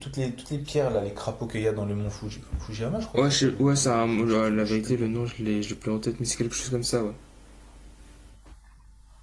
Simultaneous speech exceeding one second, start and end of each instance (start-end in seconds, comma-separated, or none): 3.2-5.1